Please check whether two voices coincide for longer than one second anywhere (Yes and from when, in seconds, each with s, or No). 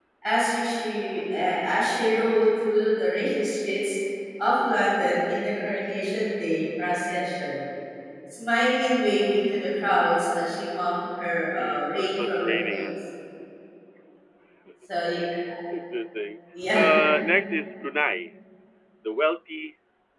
Yes, from 11.6 s